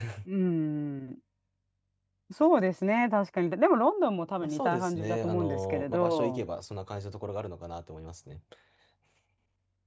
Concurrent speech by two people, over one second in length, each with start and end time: 4.4-6.4

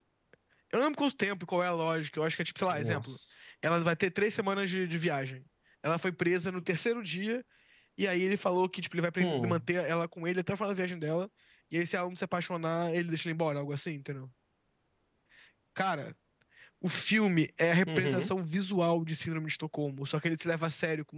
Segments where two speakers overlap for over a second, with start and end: none

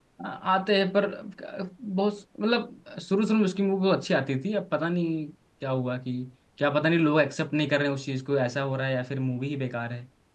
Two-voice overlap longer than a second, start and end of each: none

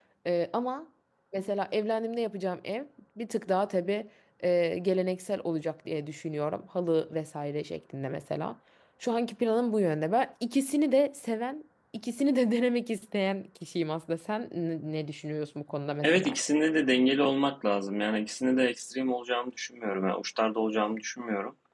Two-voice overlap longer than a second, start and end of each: none

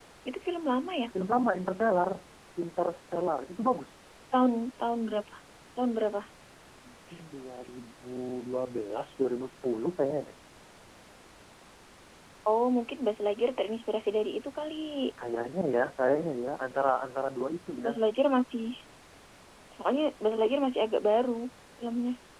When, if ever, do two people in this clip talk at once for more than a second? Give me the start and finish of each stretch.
none

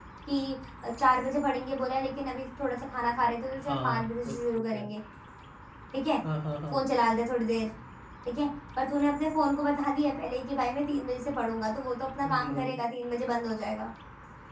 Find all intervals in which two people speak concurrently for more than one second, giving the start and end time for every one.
3.7-4.9

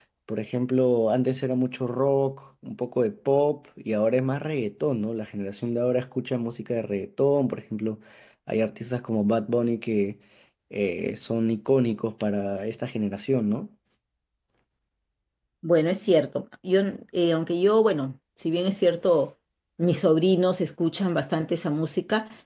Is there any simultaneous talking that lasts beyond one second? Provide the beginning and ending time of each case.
none

